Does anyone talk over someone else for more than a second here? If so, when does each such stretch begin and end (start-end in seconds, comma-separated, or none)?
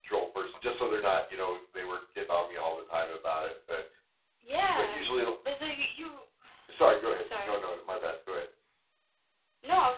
none